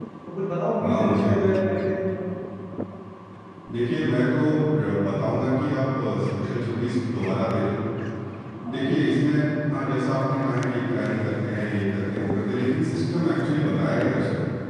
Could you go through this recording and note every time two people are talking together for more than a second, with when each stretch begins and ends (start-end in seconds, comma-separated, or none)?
none